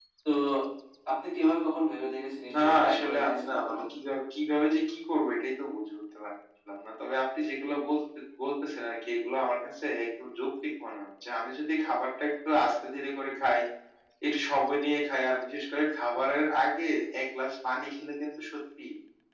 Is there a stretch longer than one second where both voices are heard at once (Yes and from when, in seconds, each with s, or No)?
Yes, from 2.4 s